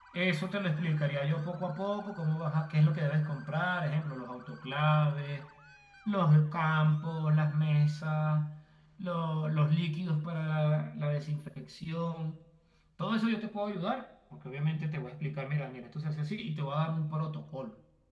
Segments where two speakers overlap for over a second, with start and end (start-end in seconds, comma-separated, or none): none